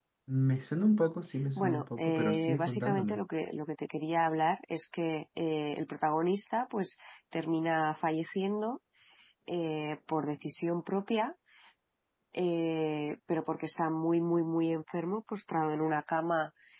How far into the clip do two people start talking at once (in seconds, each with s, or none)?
1.6 s